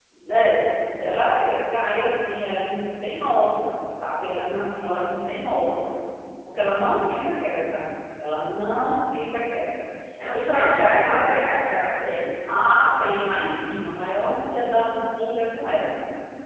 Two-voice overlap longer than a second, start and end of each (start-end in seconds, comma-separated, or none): 10.3-11.5